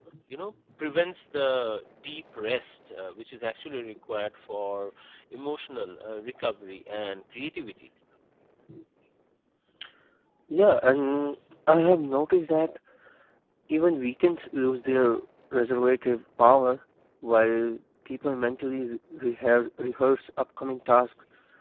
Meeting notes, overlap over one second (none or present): none